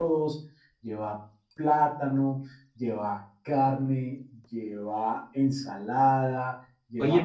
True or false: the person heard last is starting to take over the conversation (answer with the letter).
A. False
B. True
B